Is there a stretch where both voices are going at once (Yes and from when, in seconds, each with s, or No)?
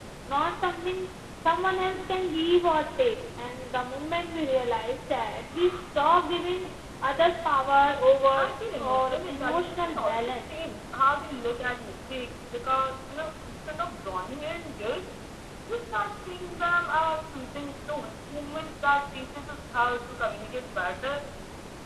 Yes, from 8.3 s